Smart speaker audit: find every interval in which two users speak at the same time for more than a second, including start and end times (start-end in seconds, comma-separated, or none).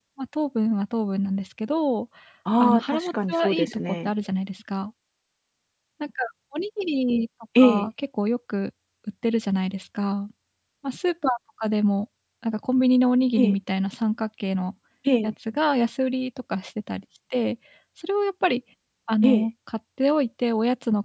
2.6-4.1